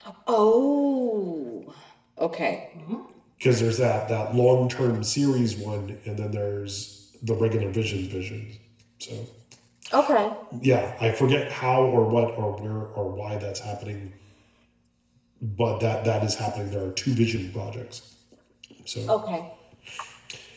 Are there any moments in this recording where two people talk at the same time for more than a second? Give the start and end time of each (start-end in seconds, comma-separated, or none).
none